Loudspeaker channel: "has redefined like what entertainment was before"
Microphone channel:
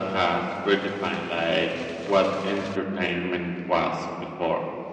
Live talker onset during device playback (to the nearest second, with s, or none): none